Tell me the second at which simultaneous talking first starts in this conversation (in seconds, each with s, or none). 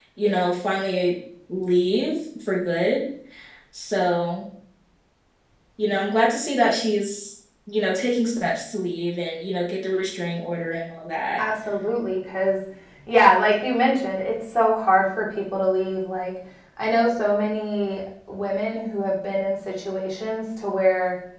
none